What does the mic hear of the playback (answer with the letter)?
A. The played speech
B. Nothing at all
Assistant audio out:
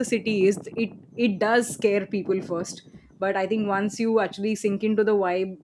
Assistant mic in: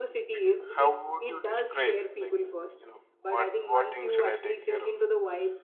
A